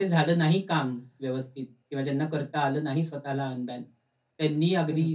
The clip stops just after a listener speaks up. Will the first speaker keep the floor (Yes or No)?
Yes